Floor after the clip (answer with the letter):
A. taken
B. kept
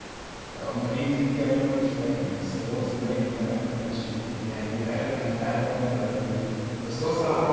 B